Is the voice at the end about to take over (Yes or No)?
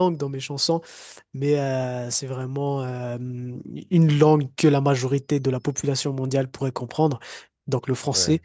No